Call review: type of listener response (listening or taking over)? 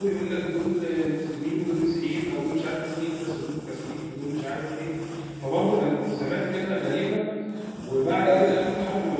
listening